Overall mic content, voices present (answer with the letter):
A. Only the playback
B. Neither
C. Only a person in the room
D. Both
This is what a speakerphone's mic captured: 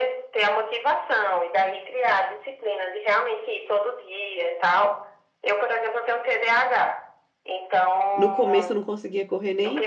D